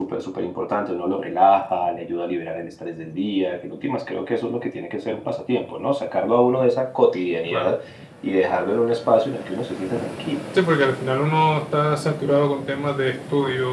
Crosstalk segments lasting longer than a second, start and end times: none

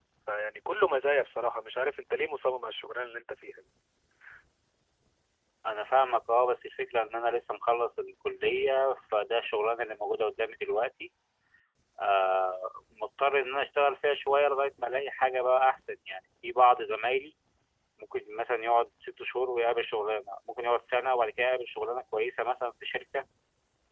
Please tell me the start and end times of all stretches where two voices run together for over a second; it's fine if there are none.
none

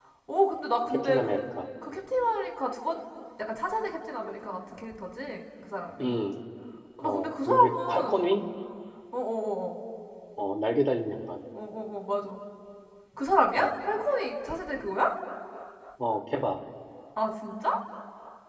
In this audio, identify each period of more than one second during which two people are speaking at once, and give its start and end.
7.0-8.3

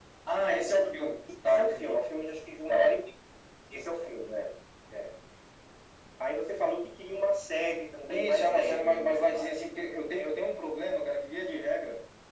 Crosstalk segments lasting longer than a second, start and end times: 8.1-9.5

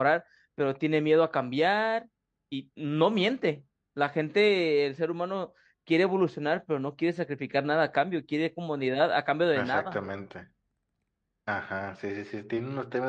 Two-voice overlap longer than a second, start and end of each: none

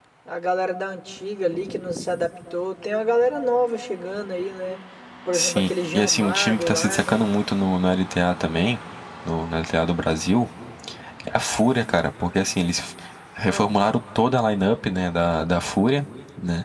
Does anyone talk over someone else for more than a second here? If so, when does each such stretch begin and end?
5.3-7.2

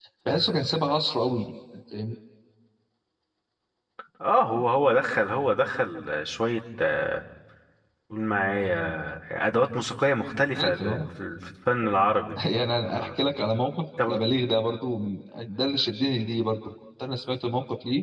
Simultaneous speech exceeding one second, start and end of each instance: none

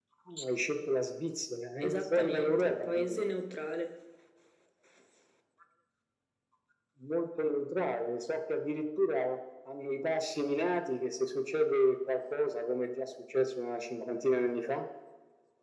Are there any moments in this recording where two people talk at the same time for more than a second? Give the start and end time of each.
1.8-3.2

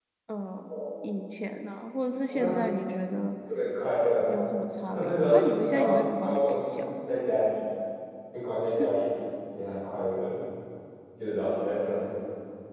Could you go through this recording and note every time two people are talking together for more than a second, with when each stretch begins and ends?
4.9-6.9

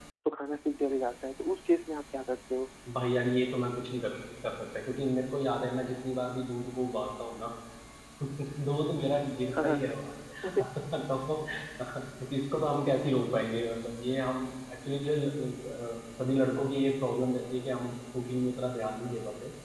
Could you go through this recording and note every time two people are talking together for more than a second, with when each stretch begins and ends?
none

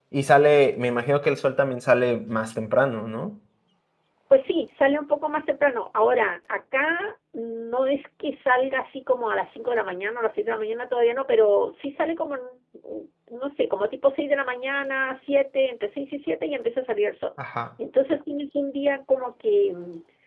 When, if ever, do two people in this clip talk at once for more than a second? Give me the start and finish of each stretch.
none

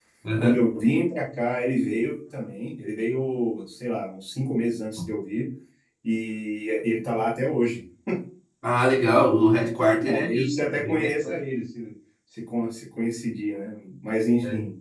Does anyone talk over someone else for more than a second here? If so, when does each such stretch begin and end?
10.1-11.4

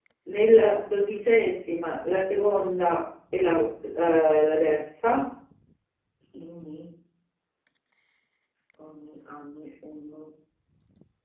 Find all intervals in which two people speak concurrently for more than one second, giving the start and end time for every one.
none

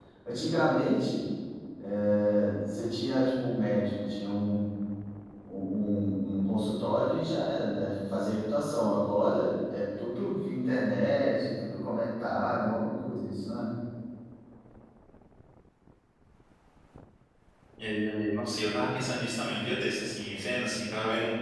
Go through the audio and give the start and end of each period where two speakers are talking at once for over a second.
none

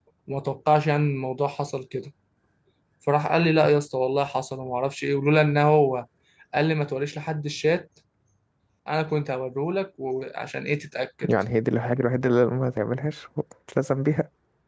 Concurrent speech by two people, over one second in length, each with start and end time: none

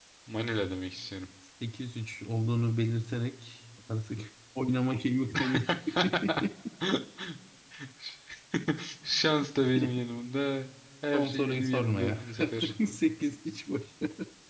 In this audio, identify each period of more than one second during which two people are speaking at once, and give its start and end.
11.1-12.7

